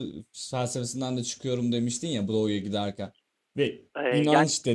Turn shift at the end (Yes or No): Yes